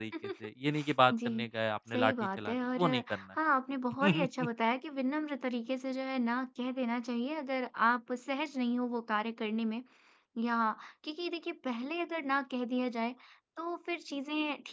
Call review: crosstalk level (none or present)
present